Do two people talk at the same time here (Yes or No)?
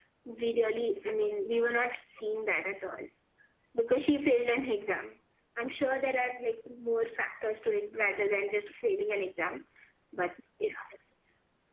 No